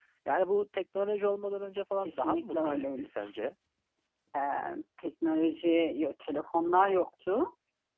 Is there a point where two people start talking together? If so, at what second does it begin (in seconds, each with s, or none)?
2.0 s